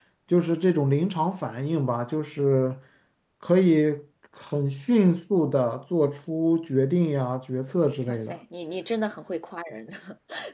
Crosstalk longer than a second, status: none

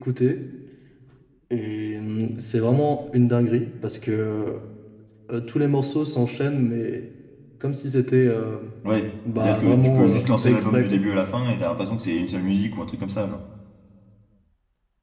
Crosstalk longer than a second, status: present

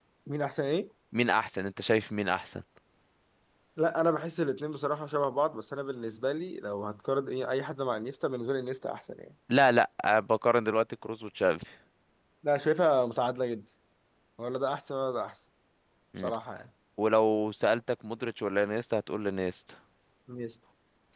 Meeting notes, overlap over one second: none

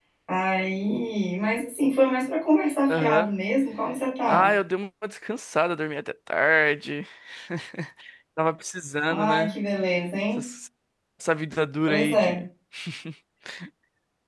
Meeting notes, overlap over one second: none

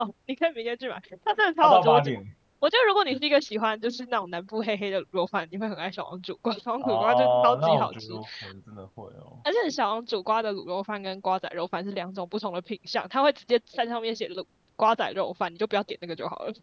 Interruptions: present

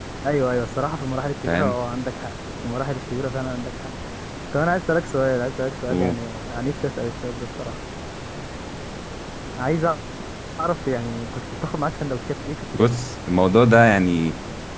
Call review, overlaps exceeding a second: none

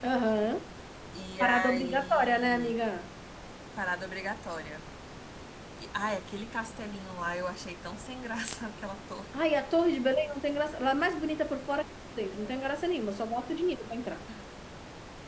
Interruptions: present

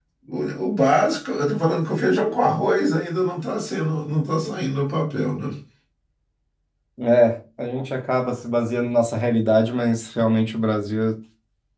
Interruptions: none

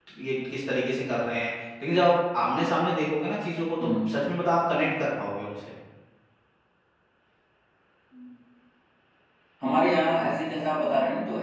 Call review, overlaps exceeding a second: none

